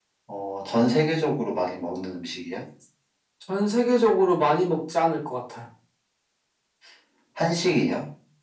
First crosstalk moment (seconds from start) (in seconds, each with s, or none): none